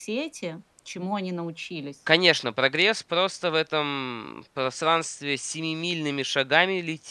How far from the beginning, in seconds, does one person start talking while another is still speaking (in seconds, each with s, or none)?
none